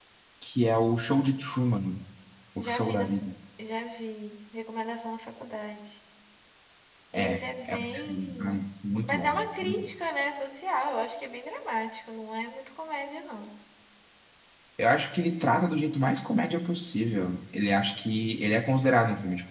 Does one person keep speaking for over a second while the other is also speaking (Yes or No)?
Yes